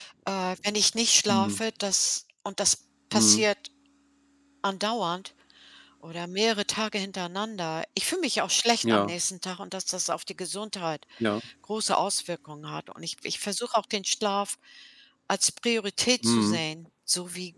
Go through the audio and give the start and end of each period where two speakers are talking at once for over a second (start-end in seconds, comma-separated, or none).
none